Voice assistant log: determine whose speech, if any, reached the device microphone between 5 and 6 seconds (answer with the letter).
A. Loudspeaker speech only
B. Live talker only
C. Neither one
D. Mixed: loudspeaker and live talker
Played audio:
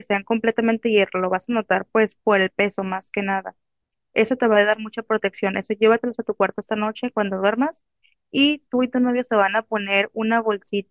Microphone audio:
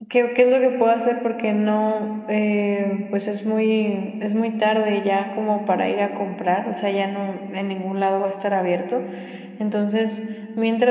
B